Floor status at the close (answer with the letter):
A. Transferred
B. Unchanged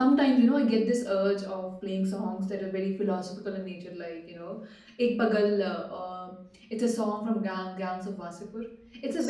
B